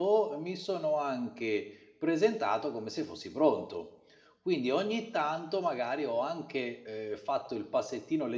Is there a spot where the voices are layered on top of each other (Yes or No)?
No